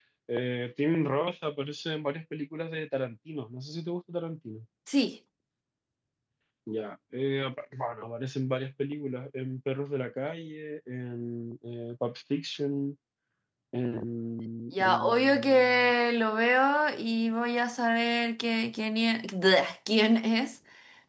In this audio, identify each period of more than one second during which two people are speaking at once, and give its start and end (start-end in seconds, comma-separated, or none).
14.7-15.9